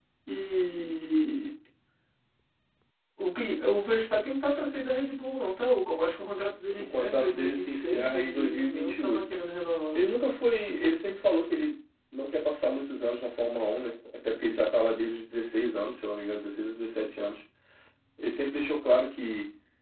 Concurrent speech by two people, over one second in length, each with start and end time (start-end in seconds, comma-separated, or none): 6.8-9.2